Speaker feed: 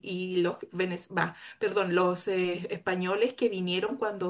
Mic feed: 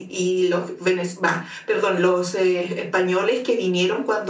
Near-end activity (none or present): none